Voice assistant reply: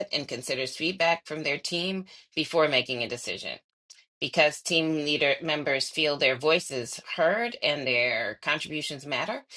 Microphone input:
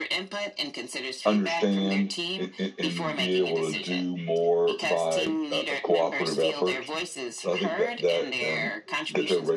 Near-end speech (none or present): present